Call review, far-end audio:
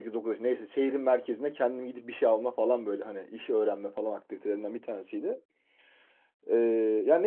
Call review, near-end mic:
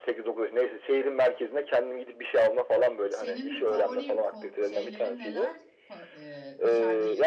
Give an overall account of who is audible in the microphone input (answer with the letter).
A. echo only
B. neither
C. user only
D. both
D